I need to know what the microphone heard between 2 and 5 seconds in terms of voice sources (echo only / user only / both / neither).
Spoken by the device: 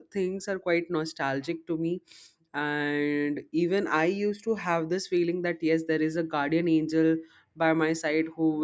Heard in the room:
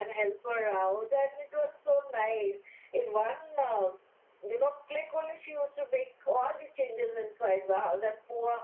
user only